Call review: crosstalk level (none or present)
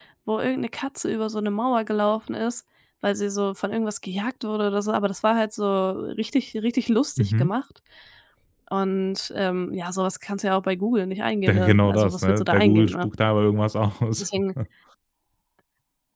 present